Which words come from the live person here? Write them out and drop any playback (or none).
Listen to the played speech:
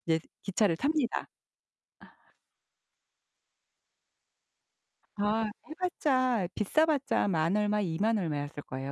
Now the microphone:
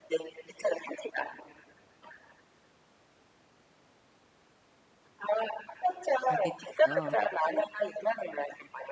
가게 됐어요. 그러니까는